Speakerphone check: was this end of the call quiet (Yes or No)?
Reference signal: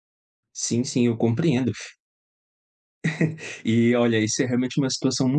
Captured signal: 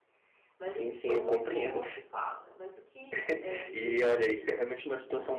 No